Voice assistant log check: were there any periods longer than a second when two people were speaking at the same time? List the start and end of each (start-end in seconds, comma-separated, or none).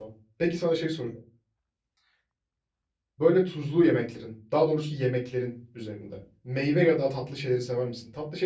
none